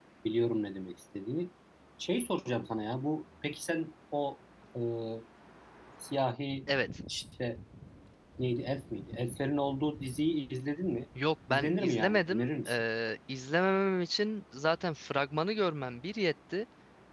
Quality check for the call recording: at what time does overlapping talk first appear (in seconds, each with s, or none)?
11.5 s